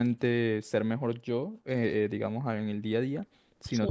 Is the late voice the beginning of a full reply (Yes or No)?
No